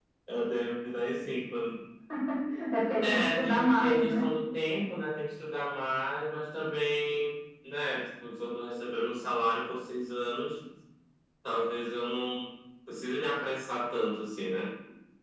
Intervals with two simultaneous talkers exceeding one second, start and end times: 3.0-4.2

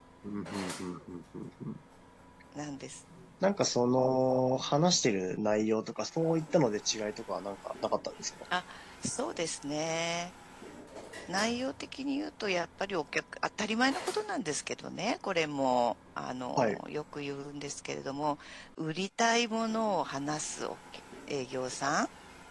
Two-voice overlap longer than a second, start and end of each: none

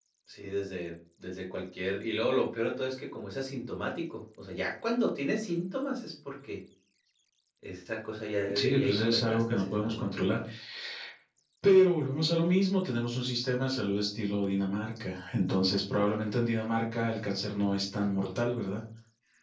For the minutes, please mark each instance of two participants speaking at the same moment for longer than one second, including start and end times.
8.5-10.4

